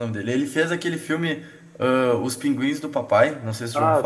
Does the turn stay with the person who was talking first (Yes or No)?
No